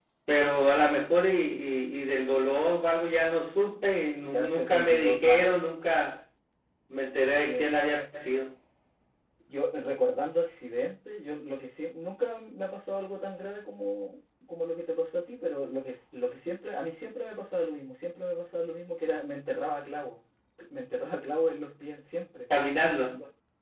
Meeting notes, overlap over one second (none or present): present